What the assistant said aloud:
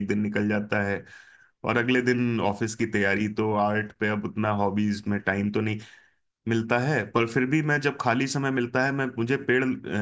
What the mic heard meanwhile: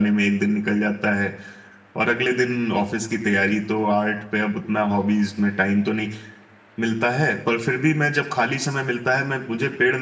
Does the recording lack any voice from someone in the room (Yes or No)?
Yes